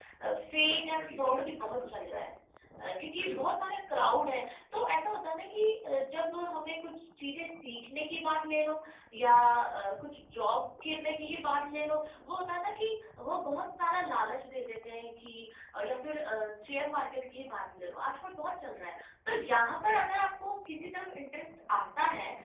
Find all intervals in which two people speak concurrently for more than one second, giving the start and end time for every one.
0.7-1.9

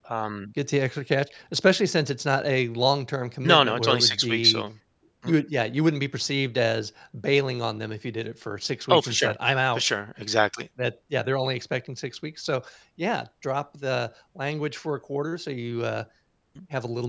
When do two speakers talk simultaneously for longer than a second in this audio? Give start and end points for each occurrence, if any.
3.4-4.6

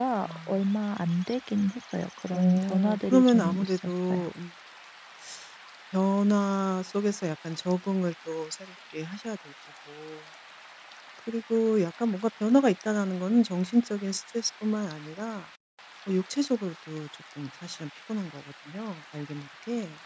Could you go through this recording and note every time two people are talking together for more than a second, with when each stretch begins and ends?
2.3-4.2

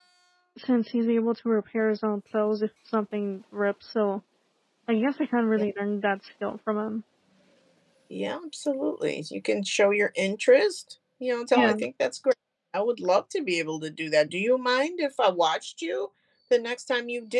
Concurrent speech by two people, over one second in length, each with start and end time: none

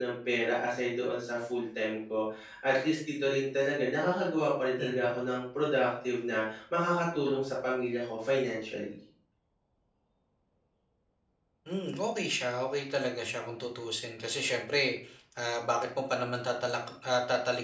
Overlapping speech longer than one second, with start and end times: none

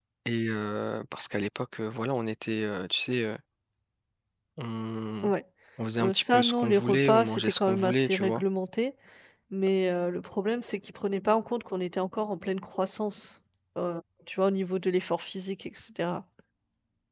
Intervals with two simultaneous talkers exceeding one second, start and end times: 6.0-8.4

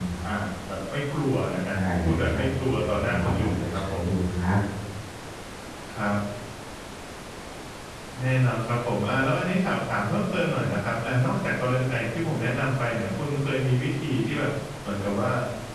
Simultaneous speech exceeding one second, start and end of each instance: 1.7-4.0

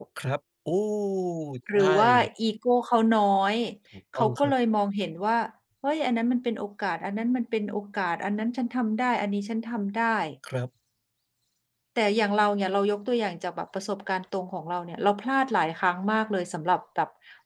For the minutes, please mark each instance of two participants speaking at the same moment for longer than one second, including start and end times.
none

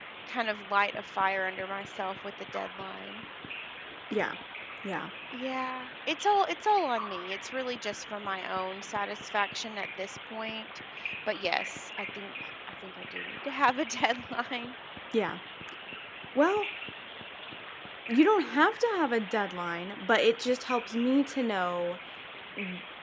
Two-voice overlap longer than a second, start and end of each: none

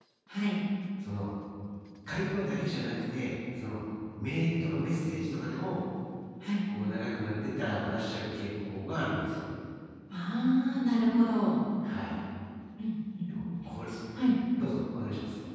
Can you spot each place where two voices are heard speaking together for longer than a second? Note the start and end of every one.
none

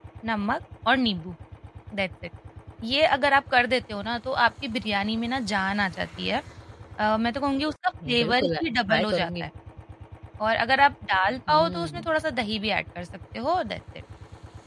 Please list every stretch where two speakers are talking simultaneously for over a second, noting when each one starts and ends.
8.2-9.4

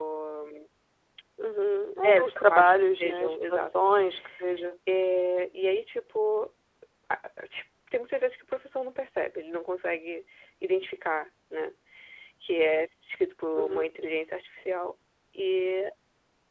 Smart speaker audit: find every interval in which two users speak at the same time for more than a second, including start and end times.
2.0-3.9

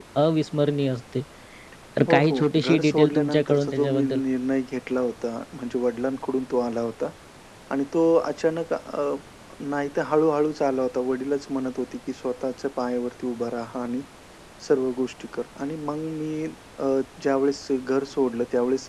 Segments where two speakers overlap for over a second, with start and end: 2.1-4.2

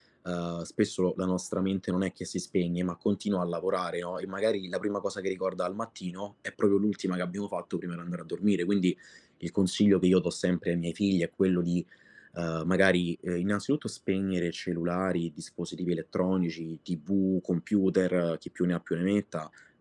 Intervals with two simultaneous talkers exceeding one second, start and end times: none

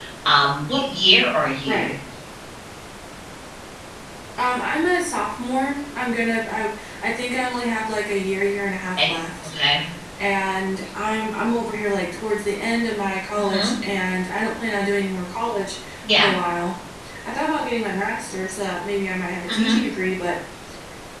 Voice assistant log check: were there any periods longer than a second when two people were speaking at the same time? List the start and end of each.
none

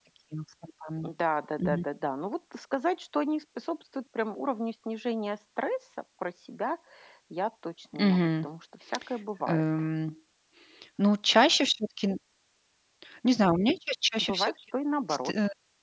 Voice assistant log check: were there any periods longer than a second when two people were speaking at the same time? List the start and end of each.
none

